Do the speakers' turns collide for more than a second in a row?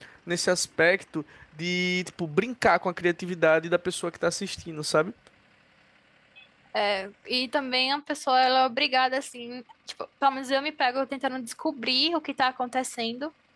No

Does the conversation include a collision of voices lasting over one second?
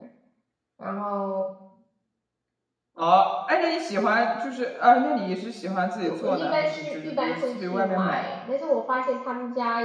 Yes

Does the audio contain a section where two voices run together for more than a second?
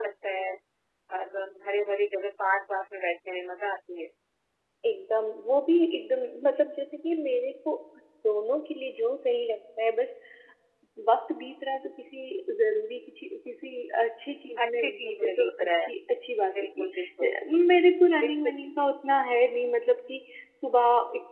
Yes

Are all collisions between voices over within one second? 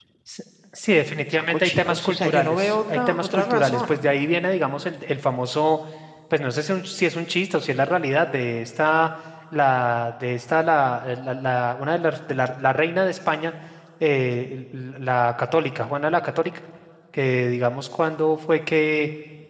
No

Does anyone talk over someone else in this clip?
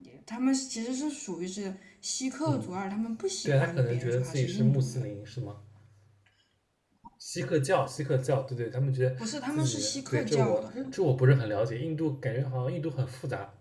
Yes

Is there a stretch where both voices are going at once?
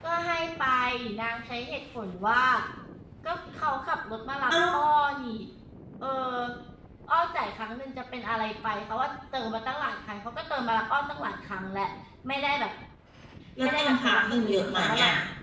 Yes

